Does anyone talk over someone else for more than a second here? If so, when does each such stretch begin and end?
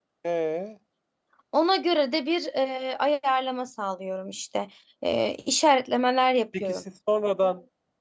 none

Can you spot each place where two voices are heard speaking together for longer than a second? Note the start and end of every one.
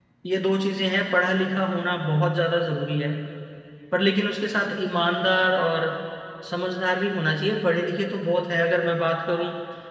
none

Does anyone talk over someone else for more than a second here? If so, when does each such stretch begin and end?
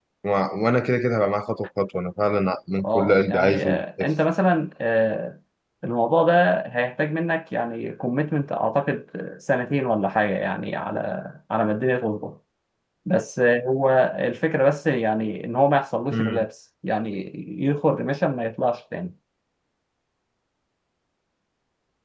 2.9-4.1

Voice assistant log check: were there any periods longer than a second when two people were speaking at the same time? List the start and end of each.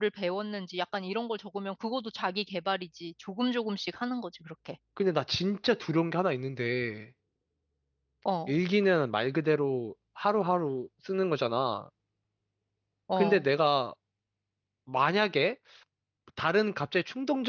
none

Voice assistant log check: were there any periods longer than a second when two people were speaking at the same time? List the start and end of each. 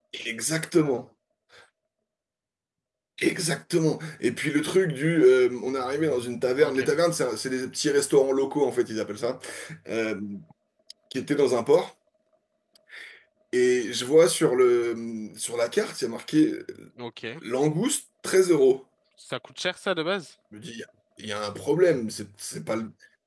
none

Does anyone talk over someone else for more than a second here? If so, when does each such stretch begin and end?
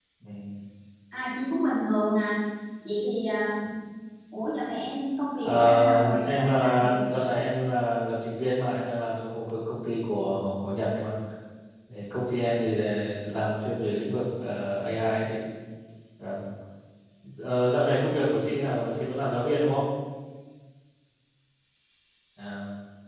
5.4-7.4

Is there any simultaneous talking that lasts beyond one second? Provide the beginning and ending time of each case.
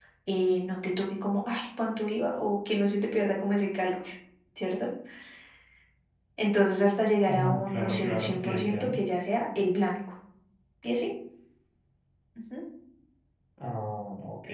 7.2-8.9

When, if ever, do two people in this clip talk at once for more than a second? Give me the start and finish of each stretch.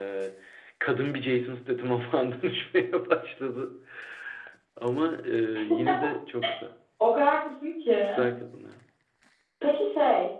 none

